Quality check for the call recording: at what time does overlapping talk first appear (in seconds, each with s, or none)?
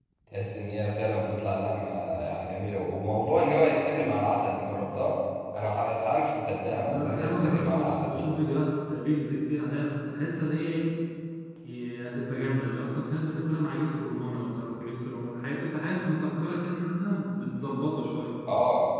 6.7 s